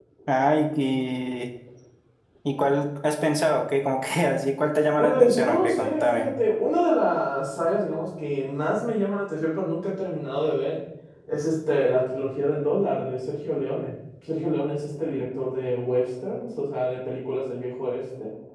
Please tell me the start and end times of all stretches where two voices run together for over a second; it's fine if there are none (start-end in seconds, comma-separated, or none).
5.0-6.3